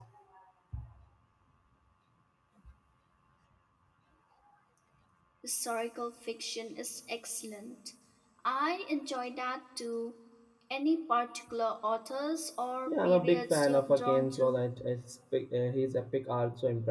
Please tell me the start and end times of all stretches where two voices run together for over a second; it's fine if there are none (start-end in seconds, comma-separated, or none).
12.9-14.7